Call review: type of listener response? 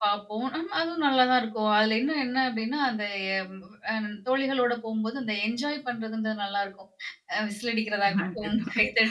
listening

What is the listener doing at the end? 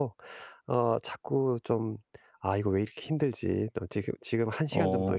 listening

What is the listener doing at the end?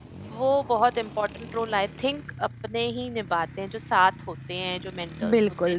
taking over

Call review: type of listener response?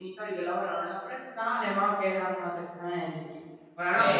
taking over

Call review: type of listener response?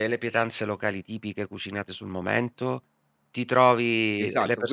taking over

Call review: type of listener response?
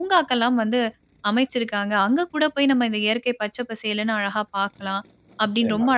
listening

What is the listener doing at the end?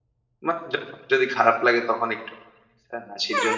taking over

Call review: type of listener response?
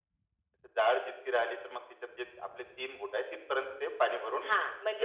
taking over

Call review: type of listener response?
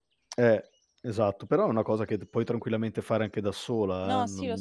taking over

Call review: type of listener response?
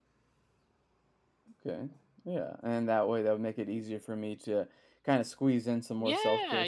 taking over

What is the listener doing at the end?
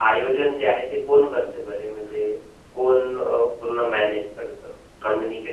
taking over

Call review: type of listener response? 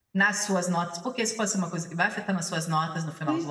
taking over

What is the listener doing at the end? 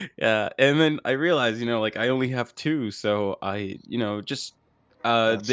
listening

